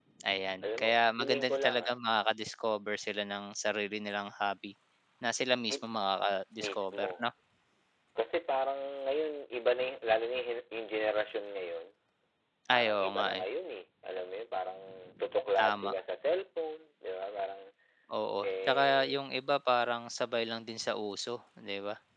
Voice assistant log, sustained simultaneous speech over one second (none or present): present